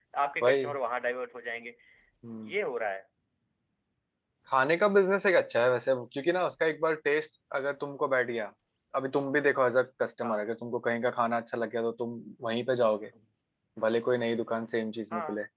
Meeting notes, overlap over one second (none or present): none